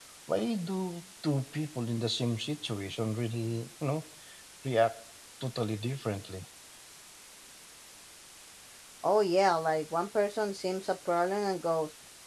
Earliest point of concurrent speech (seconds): none

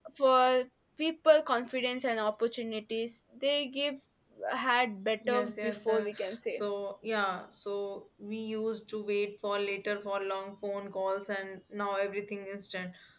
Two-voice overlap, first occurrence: 5.3 s

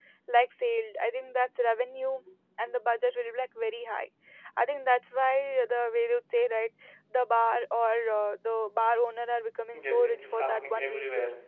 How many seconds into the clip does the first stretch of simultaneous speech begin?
9.7 s

